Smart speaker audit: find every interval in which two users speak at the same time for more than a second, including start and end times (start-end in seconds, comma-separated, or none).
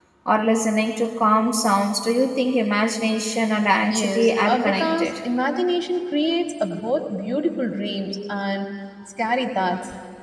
3.9-5.1